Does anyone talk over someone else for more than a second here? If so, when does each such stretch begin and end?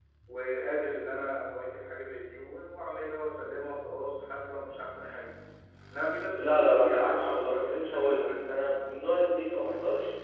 6.4-8.5

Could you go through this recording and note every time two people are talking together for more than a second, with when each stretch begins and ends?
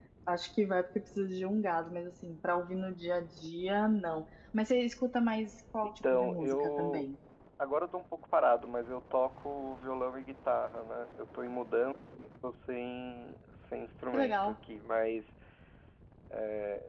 5.8-7.0

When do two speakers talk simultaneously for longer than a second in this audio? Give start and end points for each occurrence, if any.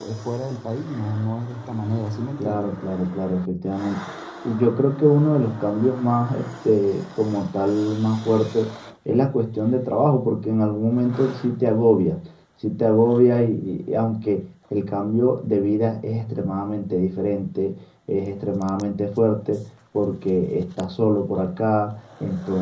none

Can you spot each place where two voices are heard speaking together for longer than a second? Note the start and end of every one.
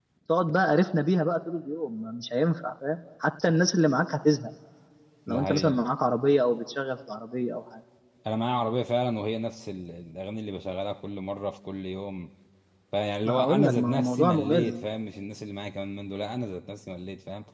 13.2-14.8

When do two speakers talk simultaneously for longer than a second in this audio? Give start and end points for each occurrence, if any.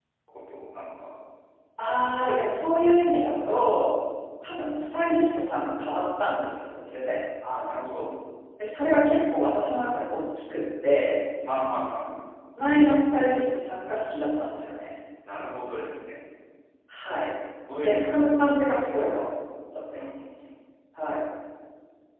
17.8-19.1

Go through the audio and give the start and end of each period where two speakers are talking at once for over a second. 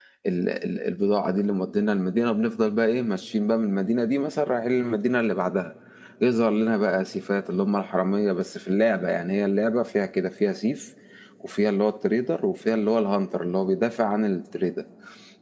none

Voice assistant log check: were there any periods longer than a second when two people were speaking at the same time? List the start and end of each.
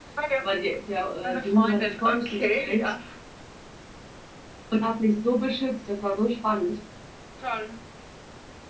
1.2-2.9

